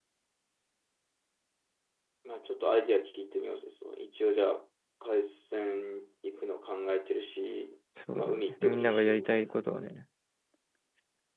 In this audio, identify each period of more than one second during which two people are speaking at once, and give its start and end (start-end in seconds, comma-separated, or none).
8.2-9.6